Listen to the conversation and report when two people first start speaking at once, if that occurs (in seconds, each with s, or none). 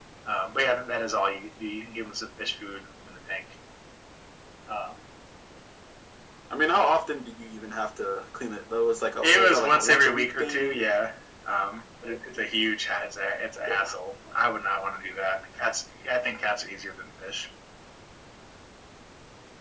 9.2 s